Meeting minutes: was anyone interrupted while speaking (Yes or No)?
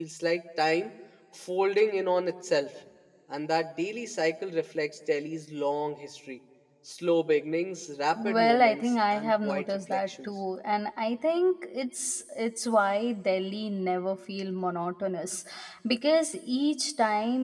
Yes